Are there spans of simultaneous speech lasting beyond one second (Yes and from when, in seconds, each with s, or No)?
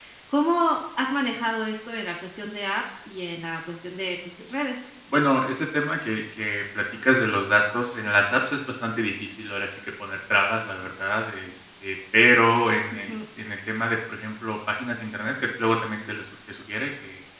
No